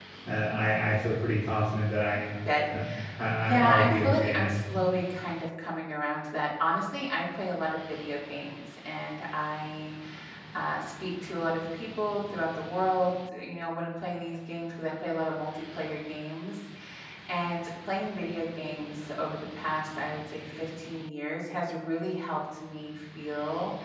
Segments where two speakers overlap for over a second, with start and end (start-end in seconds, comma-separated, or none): 3.5-4.8